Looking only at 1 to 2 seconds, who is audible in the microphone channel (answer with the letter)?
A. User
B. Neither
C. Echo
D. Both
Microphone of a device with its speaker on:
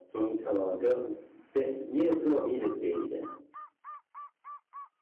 C